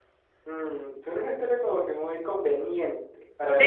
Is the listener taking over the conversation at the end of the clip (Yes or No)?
Yes